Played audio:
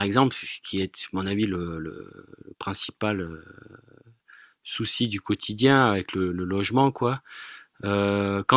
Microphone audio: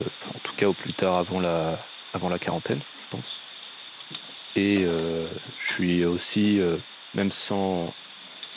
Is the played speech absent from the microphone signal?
Yes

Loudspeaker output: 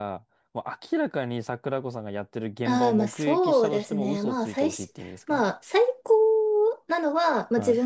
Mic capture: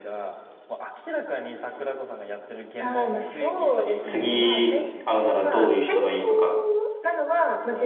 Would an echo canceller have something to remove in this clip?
Yes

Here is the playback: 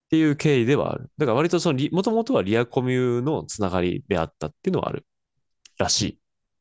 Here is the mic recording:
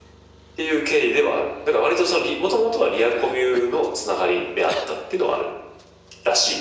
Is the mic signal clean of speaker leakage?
No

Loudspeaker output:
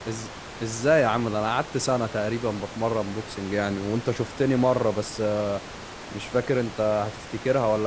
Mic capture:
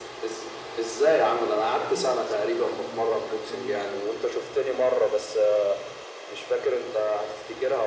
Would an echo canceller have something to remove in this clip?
Yes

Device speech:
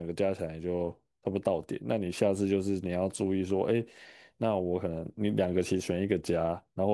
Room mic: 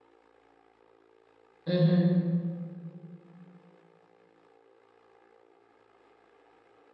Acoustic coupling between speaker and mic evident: No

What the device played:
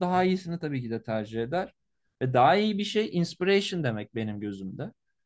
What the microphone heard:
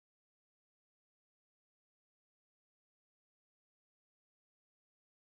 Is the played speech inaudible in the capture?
Yes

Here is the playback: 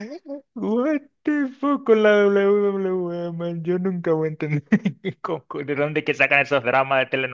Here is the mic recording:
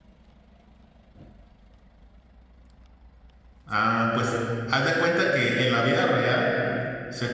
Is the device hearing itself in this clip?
No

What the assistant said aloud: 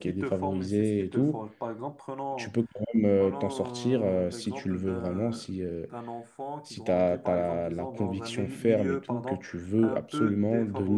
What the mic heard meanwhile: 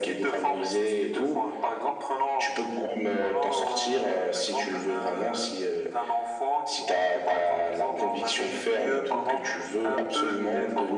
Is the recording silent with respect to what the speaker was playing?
No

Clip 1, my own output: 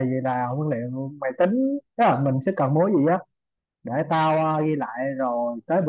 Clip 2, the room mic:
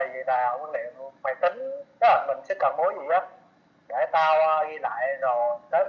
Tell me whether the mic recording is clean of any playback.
No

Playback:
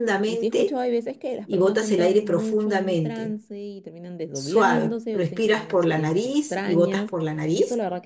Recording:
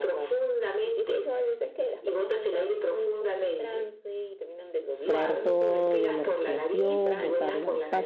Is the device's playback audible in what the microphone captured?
Yes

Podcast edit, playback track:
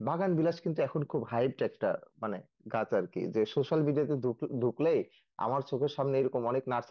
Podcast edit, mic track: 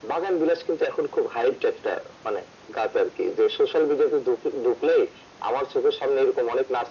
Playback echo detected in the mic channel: Yes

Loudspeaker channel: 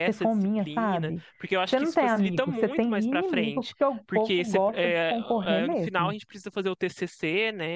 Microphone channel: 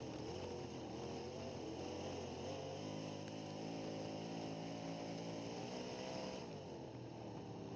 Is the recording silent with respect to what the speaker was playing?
Yes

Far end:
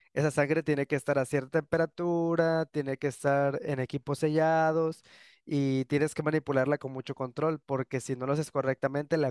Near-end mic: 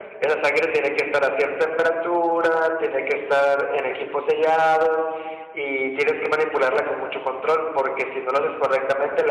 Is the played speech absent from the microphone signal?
No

